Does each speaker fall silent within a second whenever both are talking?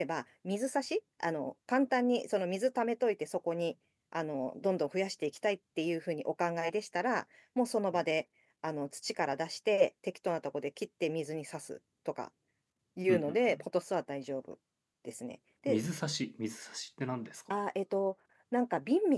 Yes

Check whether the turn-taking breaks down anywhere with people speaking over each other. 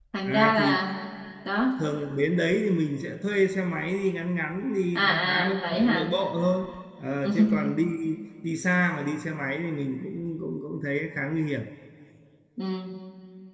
Yes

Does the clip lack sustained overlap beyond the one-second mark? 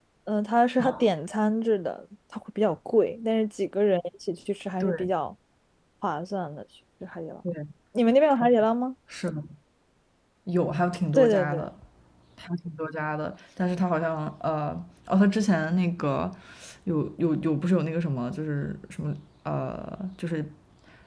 Yes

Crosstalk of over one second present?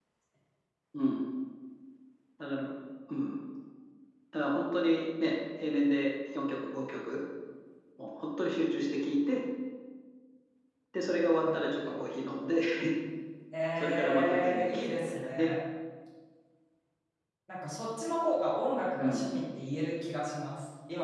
Yes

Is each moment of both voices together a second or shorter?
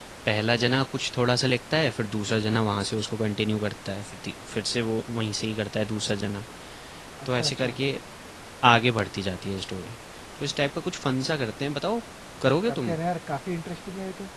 Yes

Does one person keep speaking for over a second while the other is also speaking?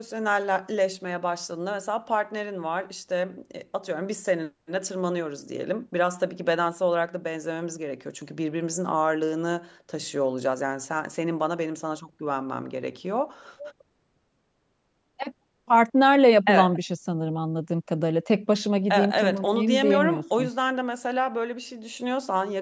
Yes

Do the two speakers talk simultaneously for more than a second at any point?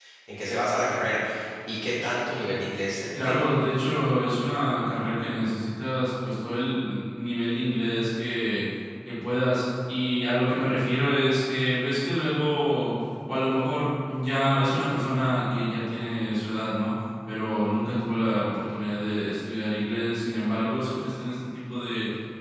No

